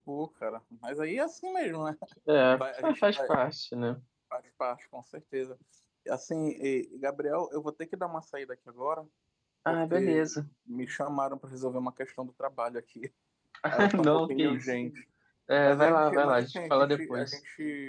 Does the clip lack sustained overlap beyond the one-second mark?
No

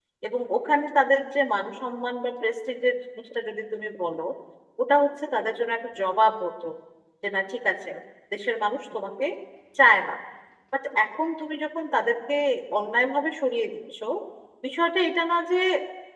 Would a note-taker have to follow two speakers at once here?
No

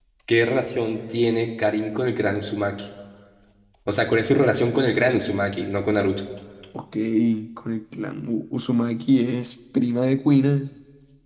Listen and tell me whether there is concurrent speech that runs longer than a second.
No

